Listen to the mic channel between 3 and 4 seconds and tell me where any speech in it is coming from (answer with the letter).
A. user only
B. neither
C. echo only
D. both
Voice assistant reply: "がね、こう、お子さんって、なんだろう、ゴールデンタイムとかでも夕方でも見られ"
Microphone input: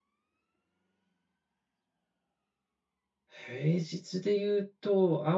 A